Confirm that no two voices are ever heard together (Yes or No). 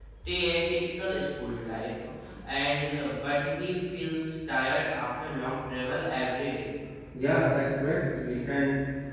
Yes